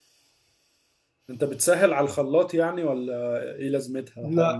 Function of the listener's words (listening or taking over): taking over